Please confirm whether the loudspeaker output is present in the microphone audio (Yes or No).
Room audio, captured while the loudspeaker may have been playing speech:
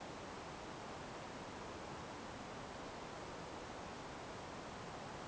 No